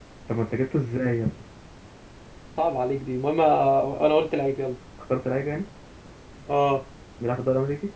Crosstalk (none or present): none